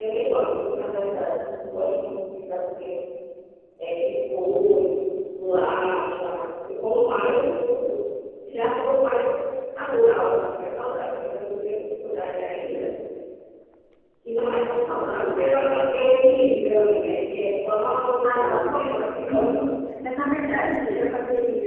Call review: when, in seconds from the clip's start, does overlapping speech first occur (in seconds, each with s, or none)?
18.2 s